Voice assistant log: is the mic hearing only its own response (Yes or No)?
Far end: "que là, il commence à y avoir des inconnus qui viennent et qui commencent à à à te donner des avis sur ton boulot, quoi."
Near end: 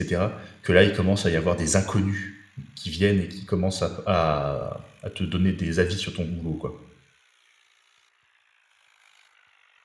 Yes